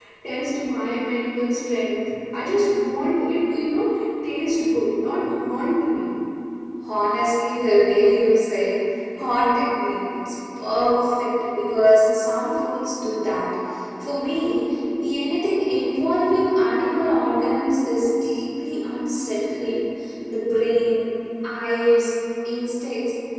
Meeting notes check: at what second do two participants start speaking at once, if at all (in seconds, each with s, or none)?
none